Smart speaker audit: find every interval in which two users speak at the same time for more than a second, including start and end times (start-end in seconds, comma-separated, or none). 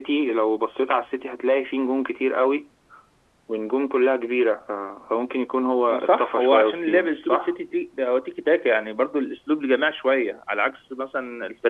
5.9-7.5